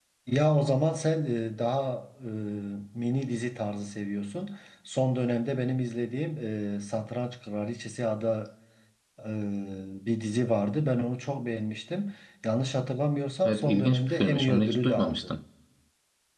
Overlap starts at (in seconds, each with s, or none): 13.4 s